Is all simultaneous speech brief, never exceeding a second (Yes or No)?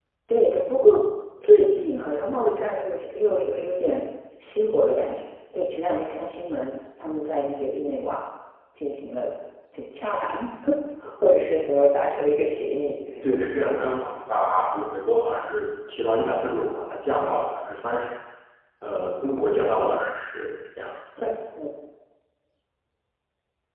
Yes